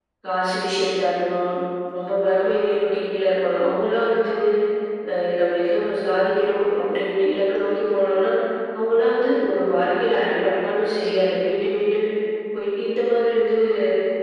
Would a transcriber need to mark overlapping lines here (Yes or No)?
No